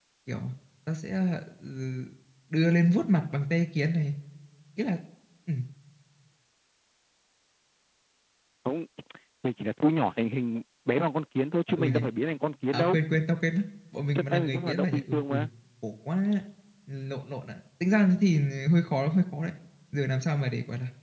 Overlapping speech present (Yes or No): Yes